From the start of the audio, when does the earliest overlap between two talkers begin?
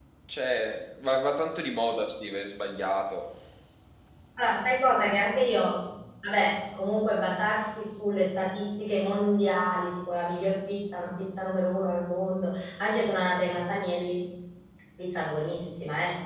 none

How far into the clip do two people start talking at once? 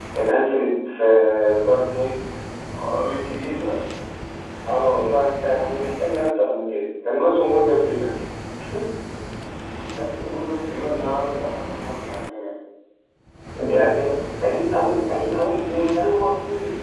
none

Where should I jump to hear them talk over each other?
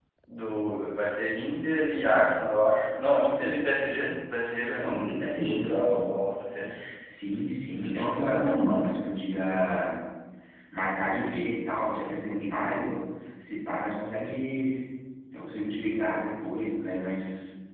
5 s

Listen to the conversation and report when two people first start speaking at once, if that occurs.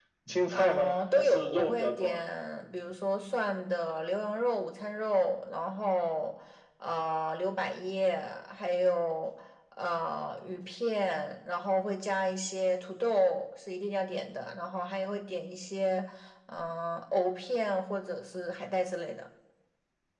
1 s

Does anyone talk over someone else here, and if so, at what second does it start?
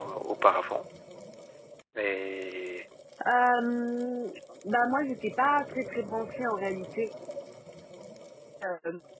none

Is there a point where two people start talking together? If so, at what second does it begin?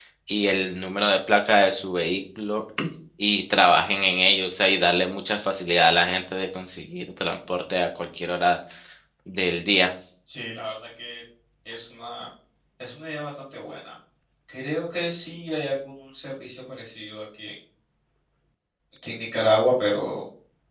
none

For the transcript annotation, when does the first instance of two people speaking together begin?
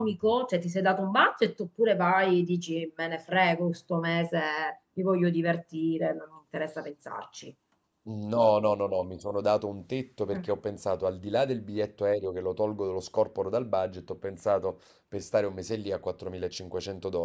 none

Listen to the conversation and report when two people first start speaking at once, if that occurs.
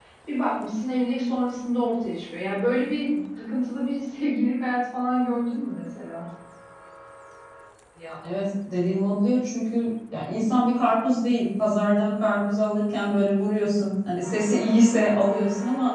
none

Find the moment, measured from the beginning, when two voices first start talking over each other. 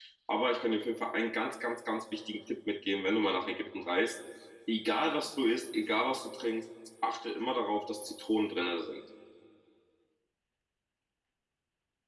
none

